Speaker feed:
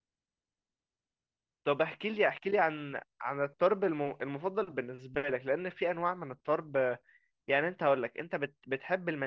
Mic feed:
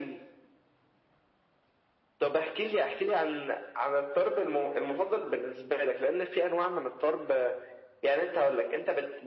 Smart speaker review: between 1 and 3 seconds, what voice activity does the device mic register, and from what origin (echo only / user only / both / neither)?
echo only